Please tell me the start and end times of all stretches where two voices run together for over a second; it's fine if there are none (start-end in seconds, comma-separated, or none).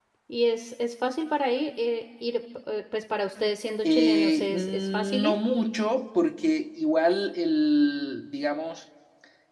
3.8-5.4